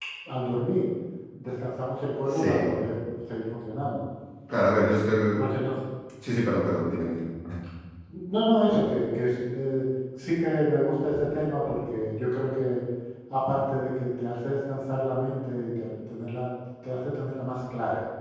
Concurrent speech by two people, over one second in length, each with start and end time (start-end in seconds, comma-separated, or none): none